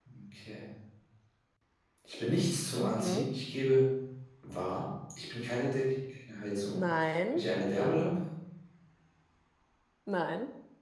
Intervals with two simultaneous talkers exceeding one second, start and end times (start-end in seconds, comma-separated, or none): none